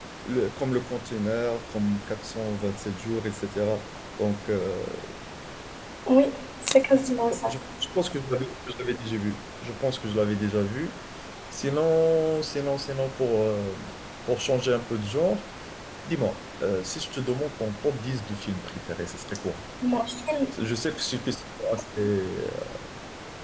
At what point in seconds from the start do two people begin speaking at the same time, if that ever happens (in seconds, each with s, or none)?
none